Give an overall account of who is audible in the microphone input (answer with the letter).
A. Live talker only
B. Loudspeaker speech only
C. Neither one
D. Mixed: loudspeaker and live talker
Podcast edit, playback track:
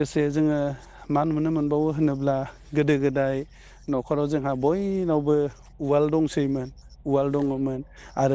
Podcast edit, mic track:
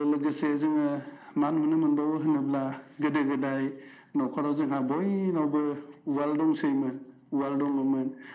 B